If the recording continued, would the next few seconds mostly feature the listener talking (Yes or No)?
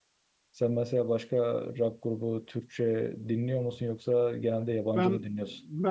Yes